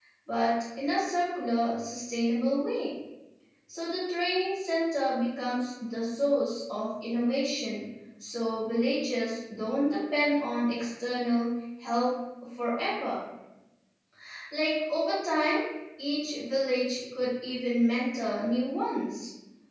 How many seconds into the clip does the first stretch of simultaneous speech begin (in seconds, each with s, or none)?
none